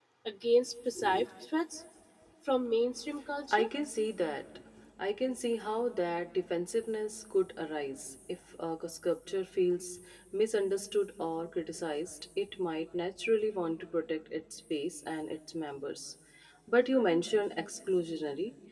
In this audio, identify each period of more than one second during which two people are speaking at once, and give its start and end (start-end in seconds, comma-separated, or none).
none